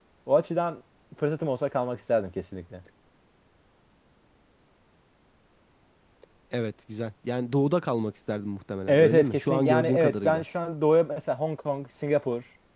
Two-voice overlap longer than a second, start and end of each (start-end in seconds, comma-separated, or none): 8.9-10.4